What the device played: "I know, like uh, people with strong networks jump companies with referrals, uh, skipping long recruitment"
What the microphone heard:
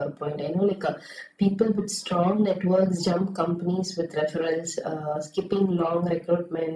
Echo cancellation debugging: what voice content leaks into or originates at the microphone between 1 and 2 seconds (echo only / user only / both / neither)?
echo only